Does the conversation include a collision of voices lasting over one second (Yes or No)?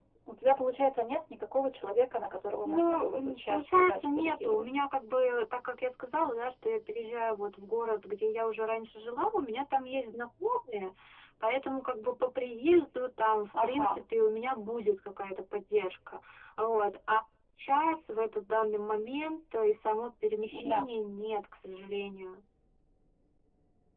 Yes